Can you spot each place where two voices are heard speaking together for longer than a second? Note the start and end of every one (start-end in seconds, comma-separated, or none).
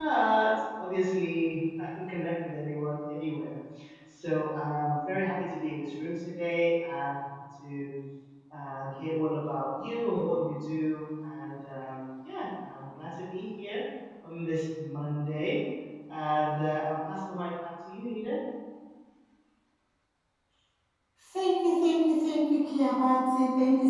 none